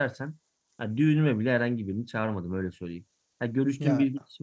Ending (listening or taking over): listening